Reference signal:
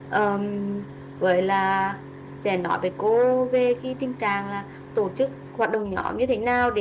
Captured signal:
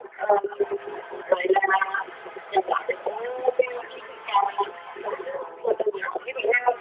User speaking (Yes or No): No